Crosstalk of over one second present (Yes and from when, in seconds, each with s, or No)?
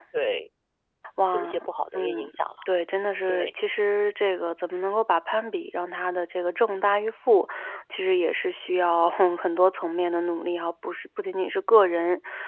No